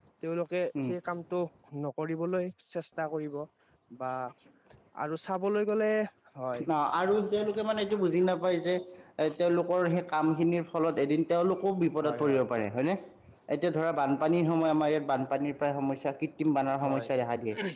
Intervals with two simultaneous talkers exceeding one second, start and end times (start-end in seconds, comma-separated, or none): none